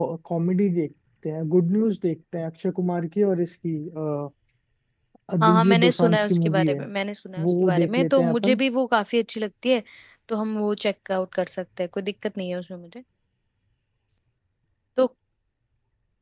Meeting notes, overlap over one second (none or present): present